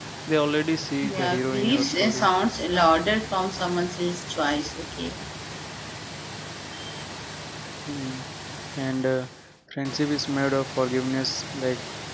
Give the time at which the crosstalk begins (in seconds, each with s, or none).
1.0 s